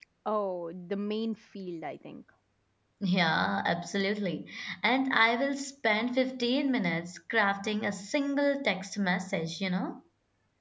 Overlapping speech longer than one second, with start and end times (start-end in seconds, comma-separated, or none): none